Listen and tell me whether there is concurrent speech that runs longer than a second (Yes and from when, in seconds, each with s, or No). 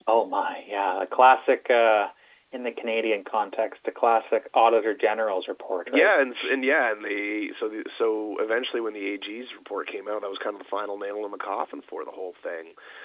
No